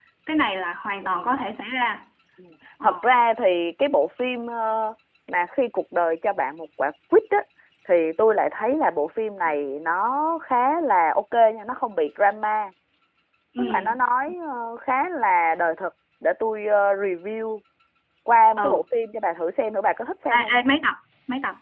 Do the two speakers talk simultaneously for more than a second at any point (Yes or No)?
No